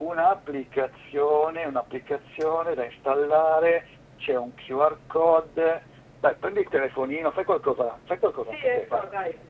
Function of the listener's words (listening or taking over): taking over